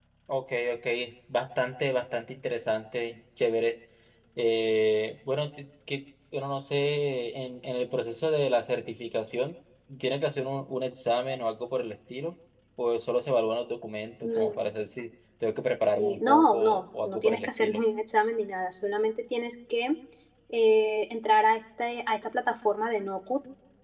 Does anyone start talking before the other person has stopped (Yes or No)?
Yes